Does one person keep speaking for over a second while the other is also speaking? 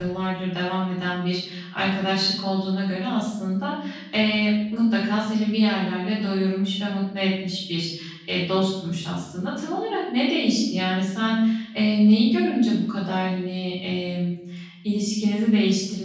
No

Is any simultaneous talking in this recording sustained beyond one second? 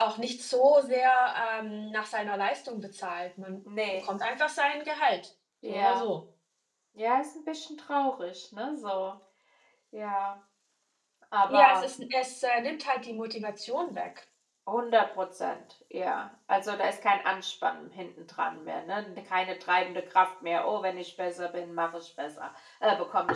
No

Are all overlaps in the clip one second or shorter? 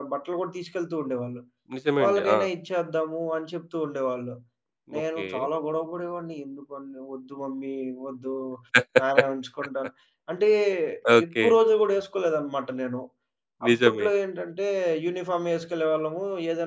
Yes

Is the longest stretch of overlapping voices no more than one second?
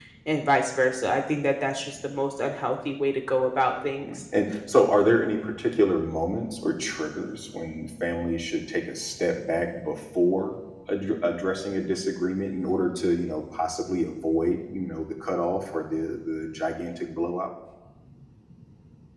Yes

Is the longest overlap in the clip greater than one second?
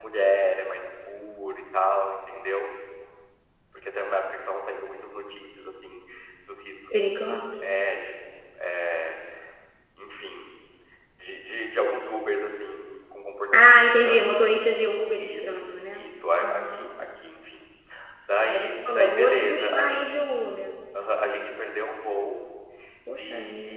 Yes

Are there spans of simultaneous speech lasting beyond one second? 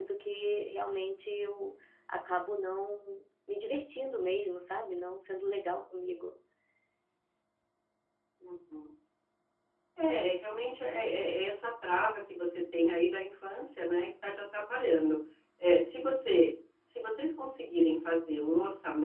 No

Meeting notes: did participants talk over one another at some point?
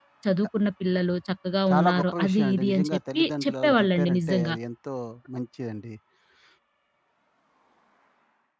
Yes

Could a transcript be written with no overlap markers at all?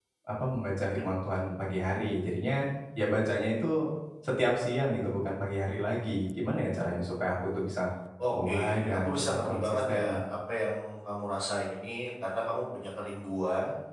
No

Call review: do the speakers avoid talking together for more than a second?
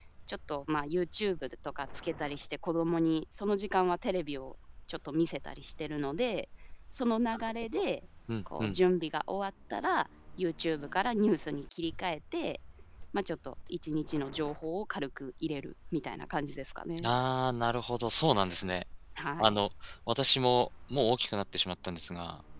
Yes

